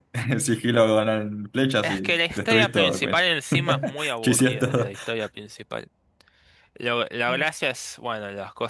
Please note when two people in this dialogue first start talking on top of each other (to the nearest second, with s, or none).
2 s